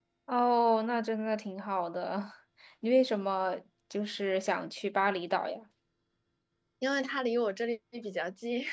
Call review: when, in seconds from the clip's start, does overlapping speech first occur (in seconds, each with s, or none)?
none